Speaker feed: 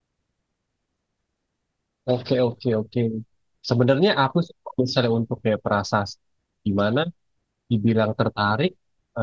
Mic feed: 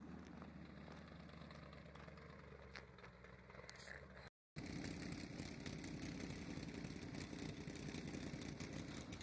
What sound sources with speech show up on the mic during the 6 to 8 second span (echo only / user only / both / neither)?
neither